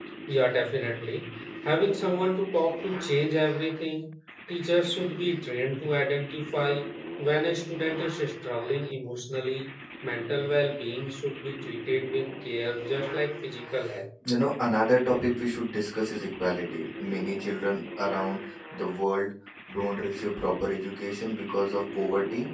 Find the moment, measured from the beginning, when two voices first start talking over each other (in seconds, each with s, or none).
none